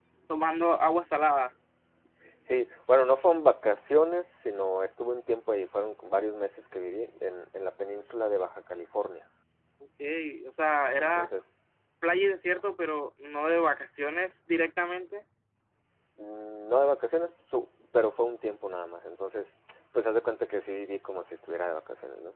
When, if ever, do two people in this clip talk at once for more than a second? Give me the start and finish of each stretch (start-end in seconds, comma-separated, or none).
none